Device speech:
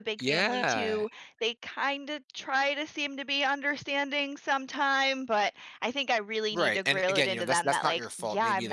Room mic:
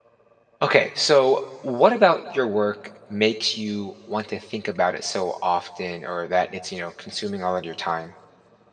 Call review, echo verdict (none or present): none